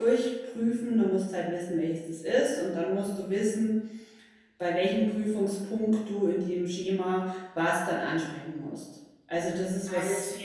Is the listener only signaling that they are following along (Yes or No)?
Yes